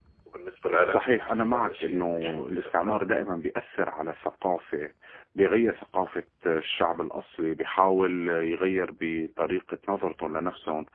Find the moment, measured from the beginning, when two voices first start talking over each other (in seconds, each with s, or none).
0.9 s